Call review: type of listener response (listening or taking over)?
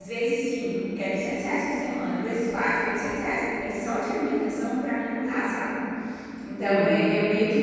listening